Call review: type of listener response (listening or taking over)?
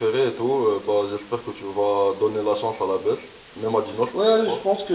taking over